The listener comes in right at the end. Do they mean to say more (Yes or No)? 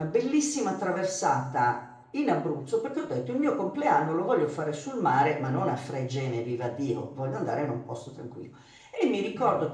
No